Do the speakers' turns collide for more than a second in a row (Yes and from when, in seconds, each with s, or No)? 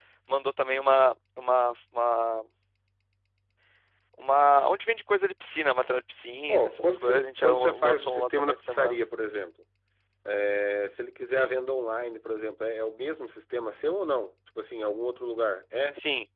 Yes, from 6.5 s